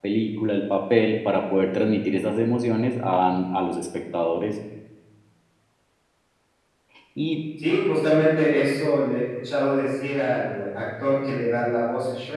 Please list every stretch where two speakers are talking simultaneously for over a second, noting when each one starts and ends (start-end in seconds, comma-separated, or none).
none